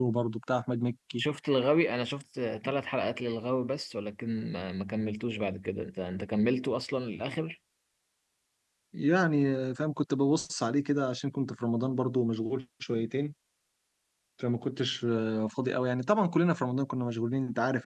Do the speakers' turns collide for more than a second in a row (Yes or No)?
No